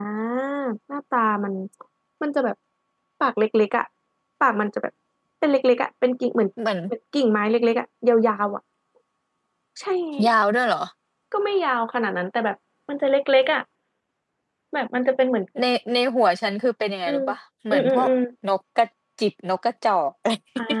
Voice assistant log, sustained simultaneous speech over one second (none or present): none